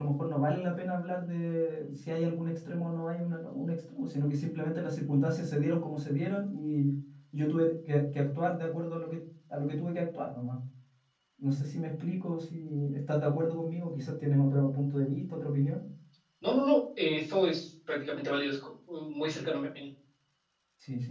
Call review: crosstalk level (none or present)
none